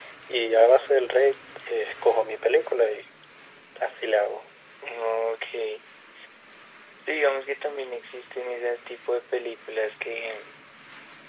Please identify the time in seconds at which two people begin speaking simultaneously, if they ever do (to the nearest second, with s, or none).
none